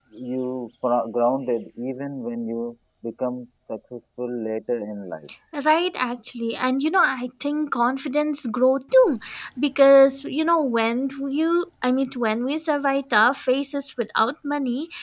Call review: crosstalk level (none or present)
none